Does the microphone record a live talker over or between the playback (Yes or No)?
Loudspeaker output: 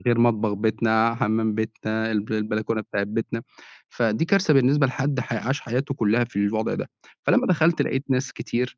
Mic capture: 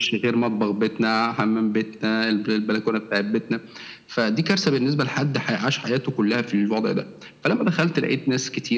No